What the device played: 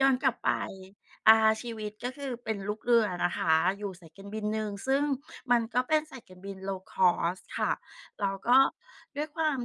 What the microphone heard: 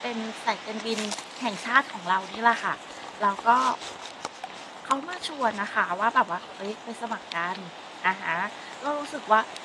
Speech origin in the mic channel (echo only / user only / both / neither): user only